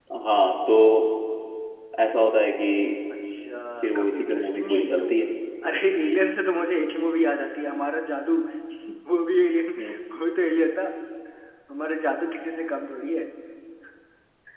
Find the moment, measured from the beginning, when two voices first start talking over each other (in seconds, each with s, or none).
3.8 s